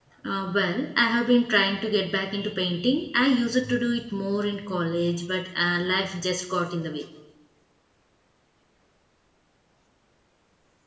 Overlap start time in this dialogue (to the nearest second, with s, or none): none